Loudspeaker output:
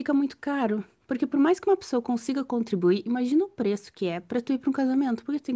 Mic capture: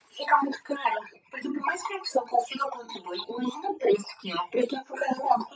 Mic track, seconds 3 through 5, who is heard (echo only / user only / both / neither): echo only